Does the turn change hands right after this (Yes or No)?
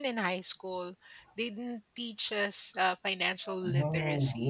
Yes